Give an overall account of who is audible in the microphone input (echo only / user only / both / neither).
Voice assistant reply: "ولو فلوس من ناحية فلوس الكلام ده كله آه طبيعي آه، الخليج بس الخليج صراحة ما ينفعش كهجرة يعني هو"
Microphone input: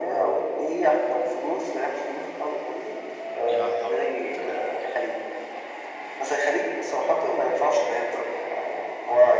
both